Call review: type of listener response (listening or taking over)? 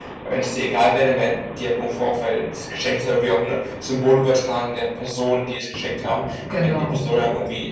listening